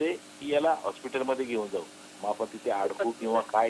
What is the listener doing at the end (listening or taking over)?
listening